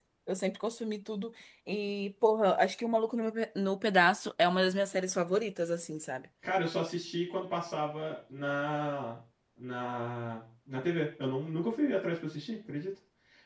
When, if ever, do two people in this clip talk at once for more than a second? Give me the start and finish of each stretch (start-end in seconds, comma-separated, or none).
none